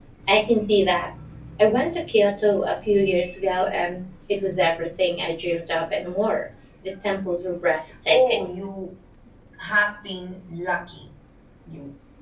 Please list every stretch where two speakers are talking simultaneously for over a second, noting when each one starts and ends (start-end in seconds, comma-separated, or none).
none